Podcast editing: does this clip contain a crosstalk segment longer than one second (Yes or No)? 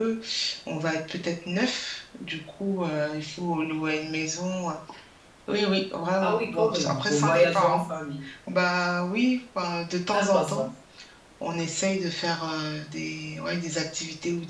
Yes